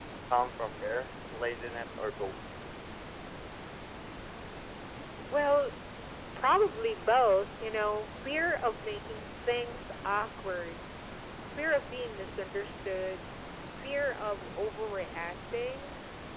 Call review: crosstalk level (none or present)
none